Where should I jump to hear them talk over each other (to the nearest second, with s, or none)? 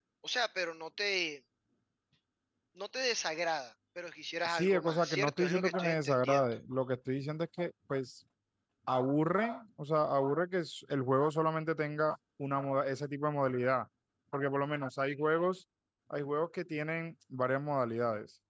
4 s